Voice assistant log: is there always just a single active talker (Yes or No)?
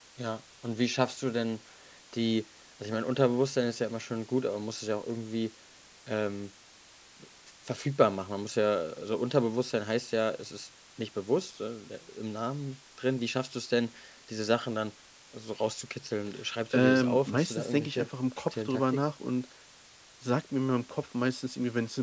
No